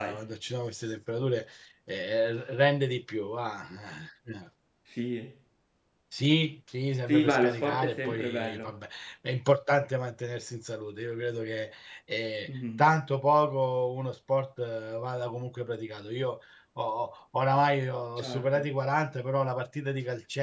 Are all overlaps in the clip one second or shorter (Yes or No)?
No